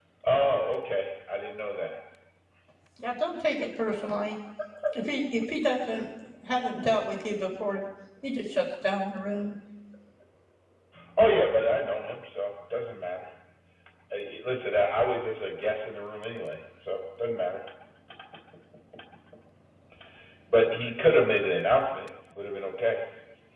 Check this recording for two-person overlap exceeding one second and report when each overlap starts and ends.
none

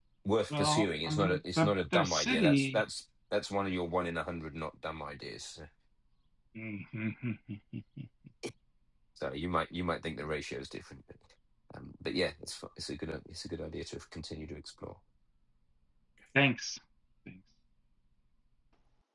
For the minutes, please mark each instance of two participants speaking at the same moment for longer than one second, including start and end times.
0.5-2.8

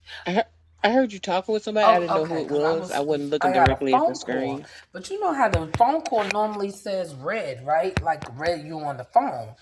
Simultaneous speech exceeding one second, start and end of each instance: 1.8-4.6

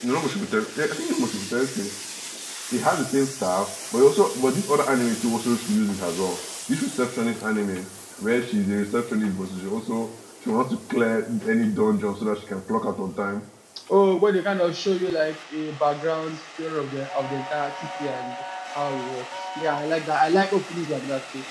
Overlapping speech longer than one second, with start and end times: none

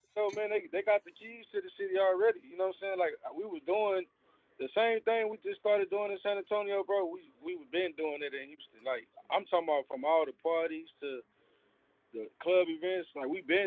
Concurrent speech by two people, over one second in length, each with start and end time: none

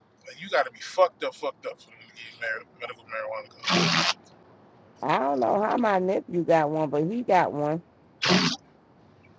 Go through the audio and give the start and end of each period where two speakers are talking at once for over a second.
none

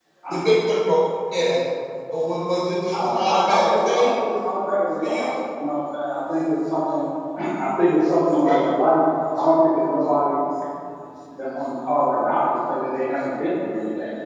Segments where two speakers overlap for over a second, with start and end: 2.9-4.2

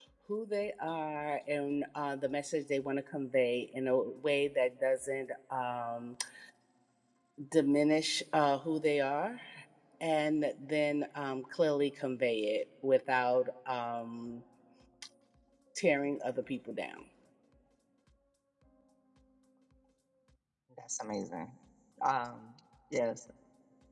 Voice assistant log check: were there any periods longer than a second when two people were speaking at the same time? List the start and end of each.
none

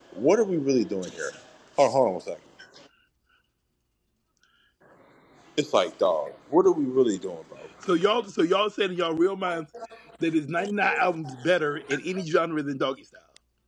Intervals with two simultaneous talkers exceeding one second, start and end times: none

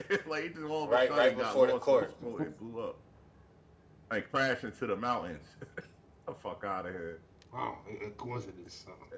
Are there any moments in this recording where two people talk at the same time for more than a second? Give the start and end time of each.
0.8-2.5

